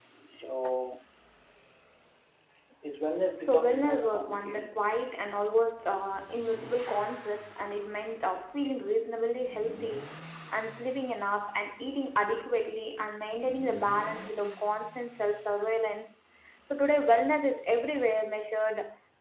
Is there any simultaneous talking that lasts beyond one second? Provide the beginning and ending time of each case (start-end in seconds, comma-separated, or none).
3.4-4.8